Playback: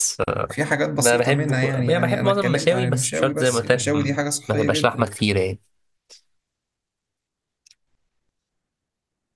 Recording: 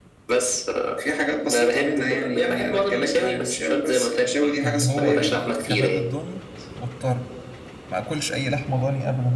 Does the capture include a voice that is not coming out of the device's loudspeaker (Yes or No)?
Yes